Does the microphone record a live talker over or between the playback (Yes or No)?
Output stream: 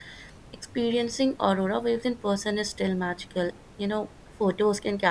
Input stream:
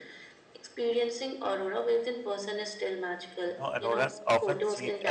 Yes